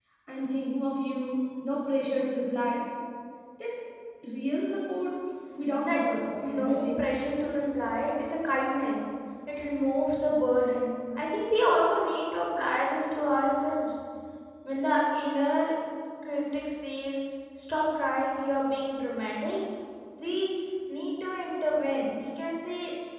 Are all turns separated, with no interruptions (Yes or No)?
No